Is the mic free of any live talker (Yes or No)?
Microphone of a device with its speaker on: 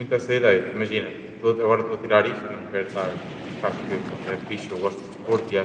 No